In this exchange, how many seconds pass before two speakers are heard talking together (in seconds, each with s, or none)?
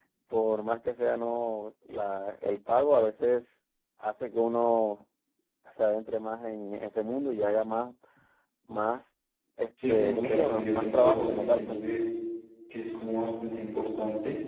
9.9 s